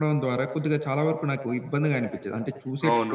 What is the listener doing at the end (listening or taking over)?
taking over